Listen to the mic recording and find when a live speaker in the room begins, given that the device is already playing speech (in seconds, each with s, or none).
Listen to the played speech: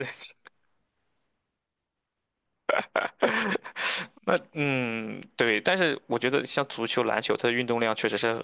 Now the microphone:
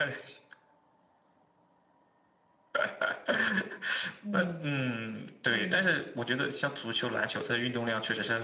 4.2 s